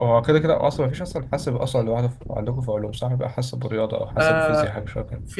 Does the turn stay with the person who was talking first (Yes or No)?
No